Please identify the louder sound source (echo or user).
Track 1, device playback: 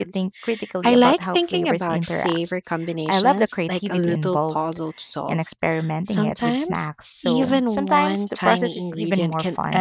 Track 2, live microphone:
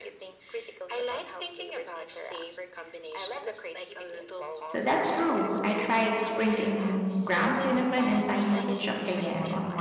user